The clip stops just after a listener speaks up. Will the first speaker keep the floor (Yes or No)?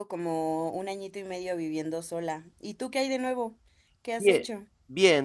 No